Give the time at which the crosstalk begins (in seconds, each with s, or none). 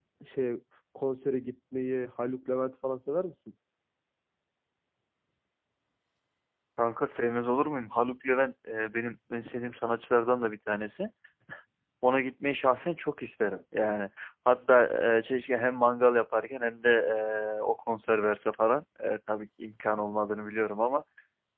none